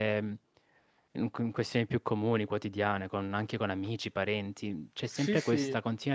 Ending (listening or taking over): listening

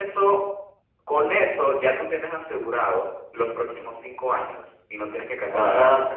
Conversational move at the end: taking over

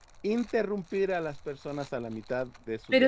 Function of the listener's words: taking over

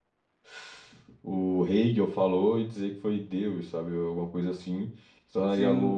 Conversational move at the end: taking over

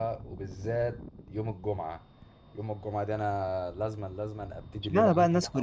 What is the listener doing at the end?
taking over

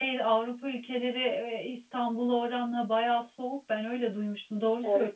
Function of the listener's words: taking over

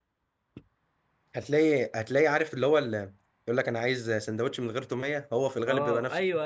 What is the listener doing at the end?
taking over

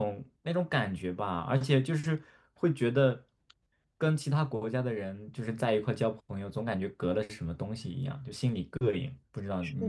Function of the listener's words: taking over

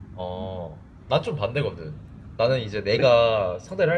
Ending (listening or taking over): listening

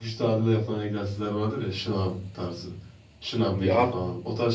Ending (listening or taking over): listening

